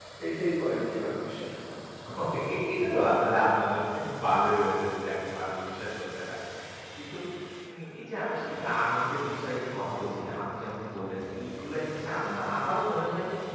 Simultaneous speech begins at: none

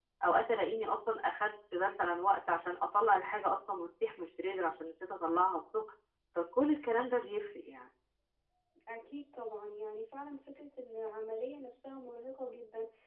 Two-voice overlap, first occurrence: none

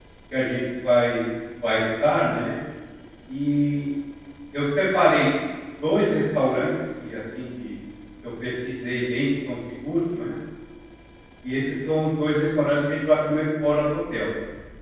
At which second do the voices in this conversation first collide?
none

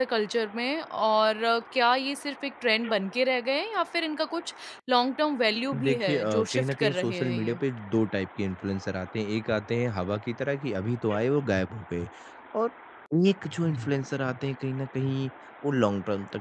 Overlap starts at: 5.7 s

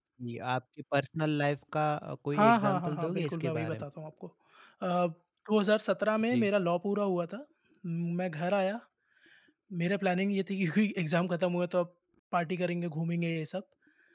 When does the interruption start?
2.3 s

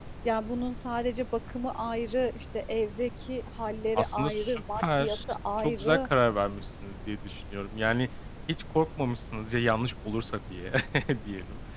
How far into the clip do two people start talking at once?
4.0 s

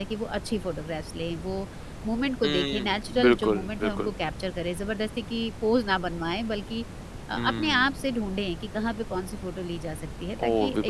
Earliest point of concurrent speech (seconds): 2.4 s

